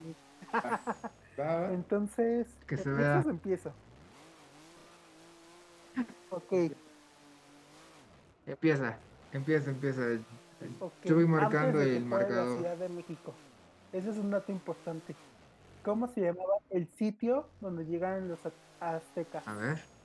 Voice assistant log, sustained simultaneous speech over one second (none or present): present